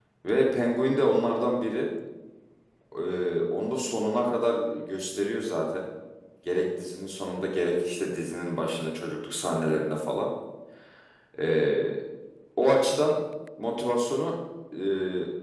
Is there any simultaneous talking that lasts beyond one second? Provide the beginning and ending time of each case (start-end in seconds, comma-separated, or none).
none